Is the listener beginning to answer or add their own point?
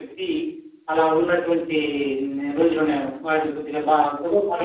Yes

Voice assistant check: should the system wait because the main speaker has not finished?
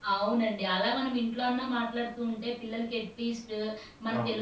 Yes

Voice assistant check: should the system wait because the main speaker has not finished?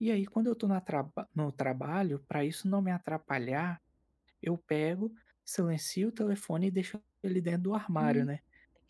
No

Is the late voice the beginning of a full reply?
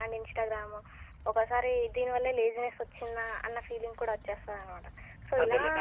Yes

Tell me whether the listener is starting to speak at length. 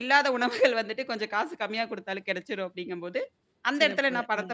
No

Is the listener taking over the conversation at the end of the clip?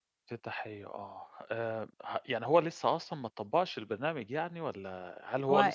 No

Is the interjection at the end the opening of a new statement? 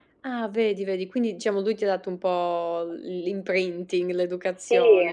Yes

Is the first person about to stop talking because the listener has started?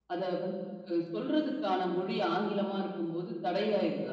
Yes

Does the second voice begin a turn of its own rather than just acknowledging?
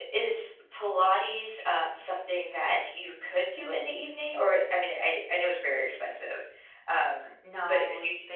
Yes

